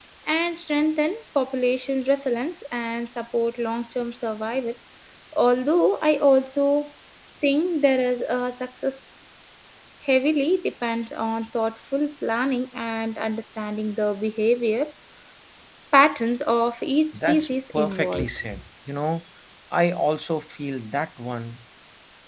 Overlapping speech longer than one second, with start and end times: 17.1-18.4

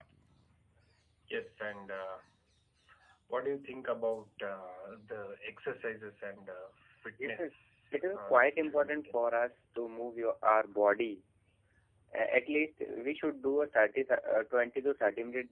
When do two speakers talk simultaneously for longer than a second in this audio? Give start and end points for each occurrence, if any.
7.9-9.2

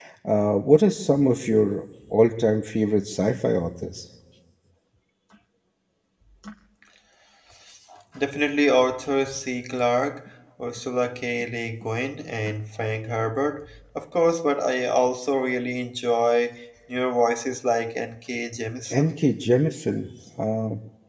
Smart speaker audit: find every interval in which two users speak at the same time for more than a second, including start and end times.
none

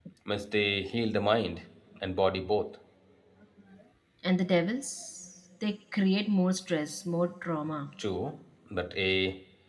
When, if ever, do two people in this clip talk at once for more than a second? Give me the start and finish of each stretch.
none

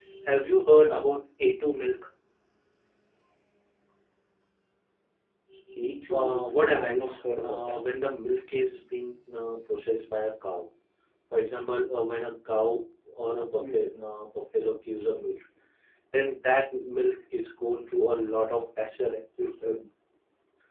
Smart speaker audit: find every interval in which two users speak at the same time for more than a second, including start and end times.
6.1-7.8

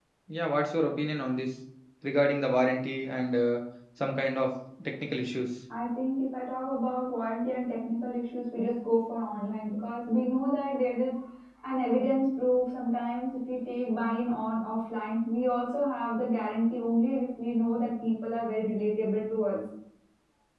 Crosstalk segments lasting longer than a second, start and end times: none

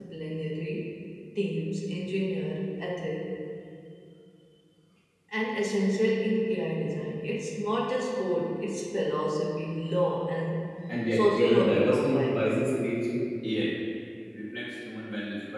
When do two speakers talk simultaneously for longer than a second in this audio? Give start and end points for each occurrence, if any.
11.1-12.6

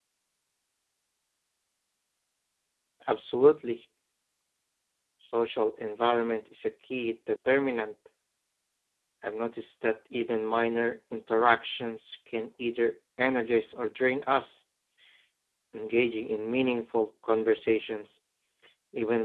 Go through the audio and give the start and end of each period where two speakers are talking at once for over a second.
none

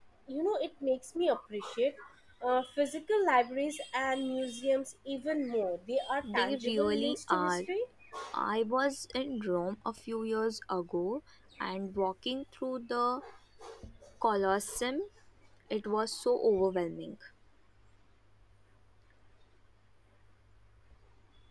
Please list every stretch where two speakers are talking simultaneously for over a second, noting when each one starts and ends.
6.3-7.6

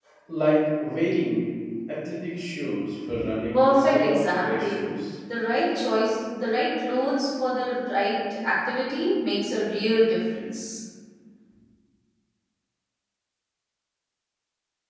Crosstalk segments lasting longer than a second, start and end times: 3.5-4.8

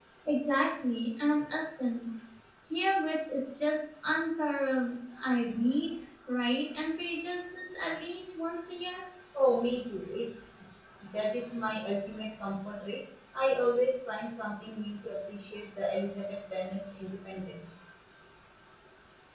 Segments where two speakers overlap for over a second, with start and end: none

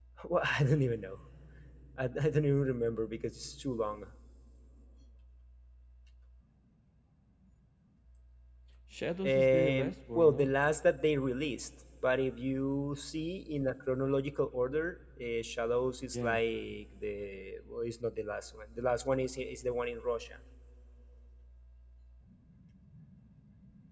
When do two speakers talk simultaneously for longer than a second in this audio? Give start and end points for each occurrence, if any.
9.2-10.5

